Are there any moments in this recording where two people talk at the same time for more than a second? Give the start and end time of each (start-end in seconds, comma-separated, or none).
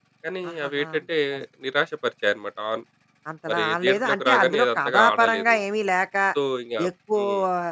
3.5-5.6